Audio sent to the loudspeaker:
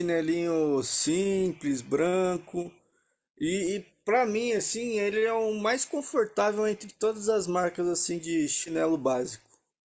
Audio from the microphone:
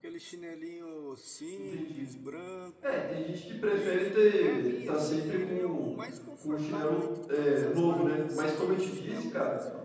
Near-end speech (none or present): present